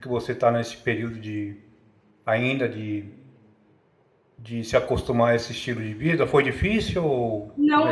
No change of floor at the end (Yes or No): No